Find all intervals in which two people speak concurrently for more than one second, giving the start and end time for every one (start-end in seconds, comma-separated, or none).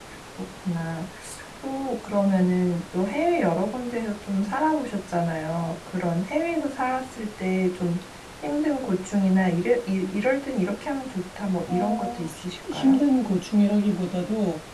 11.7-13.0